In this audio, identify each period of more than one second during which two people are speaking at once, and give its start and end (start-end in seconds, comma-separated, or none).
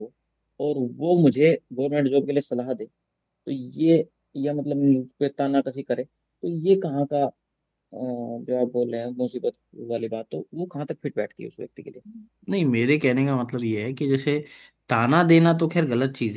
none